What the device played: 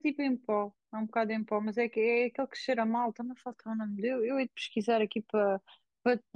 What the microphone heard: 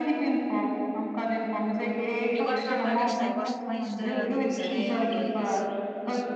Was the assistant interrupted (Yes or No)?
Yes